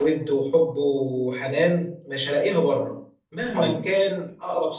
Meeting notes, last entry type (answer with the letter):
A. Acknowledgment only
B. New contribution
A